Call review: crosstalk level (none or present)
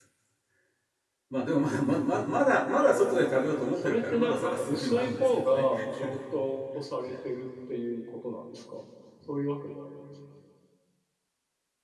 present